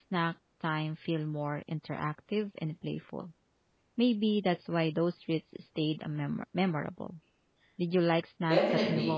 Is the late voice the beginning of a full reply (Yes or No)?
Yes